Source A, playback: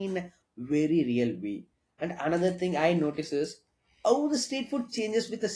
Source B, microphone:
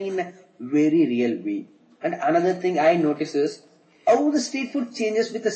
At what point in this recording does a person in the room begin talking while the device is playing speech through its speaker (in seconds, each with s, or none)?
none